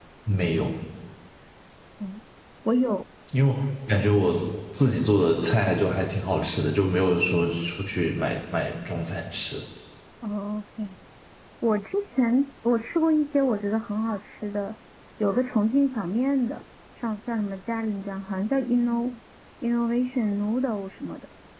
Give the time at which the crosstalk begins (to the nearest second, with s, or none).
none